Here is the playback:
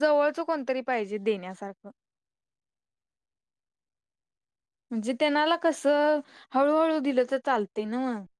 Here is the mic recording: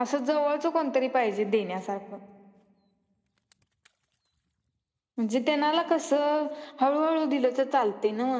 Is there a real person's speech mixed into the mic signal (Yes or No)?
No